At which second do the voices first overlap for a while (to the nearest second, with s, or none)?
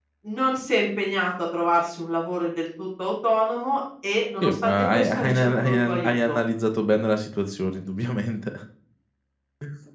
4 s